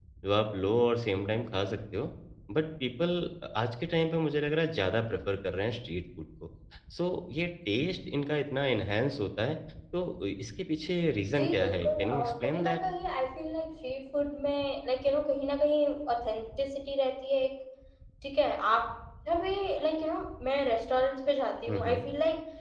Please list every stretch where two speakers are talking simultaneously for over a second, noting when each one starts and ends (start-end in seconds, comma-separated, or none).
11.4-12.8